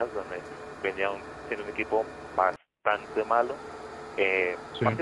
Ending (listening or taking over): listening